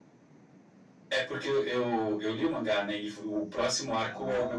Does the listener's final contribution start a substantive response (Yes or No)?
No